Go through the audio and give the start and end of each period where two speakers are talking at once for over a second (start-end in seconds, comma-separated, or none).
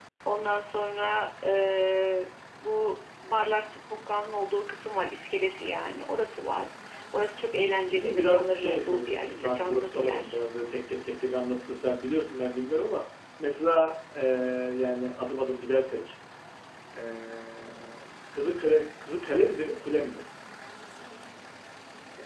8.0-10.4